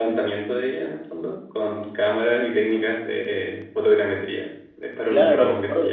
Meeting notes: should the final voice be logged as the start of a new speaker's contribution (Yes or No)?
Yes